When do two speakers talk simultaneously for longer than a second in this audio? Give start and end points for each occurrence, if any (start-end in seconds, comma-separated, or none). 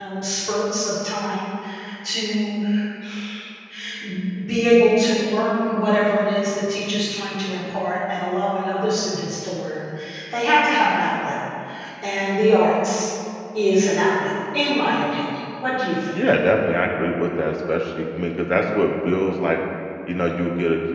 none